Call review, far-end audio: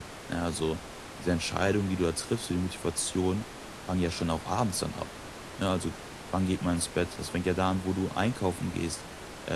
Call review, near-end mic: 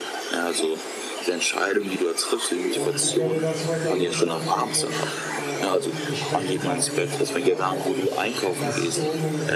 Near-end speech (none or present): present